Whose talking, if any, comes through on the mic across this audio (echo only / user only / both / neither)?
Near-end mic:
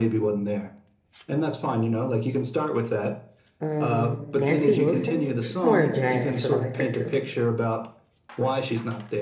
both